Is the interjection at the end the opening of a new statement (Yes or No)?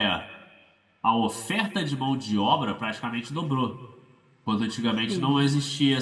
No